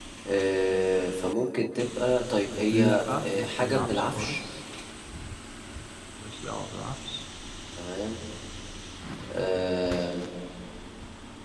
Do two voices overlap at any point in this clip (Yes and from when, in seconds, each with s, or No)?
Yes, from 2.7 s